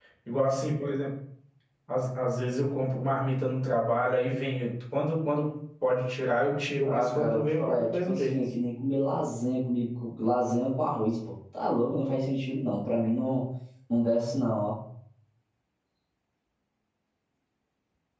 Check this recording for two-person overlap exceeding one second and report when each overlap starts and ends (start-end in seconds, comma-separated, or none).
6.8-8.3